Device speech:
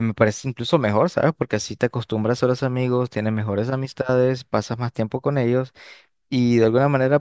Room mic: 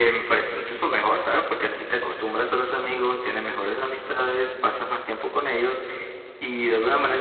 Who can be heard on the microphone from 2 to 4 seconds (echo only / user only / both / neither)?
echo only